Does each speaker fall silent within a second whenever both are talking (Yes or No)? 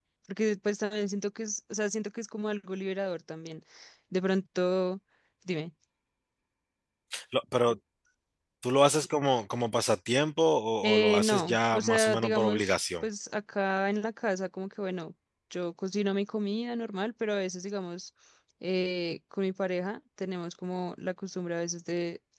No